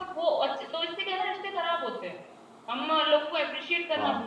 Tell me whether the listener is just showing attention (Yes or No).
Yes